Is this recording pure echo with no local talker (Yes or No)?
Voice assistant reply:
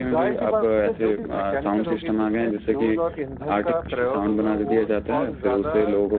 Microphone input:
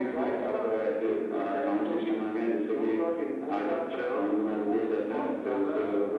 Yes